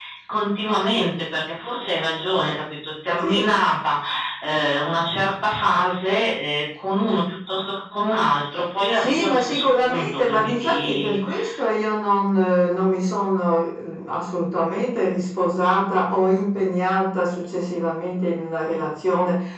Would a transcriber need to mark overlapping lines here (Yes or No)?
Yes